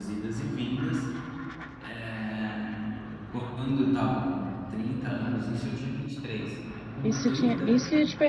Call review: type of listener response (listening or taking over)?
taking over